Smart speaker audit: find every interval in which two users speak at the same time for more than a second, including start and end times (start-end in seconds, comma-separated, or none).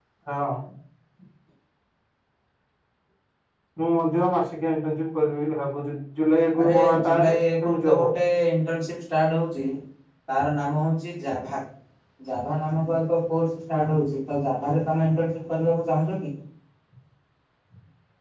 6.6-8.1